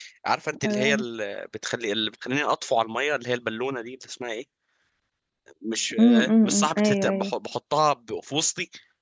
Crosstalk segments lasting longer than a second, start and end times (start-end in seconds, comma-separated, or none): 6.0-7.3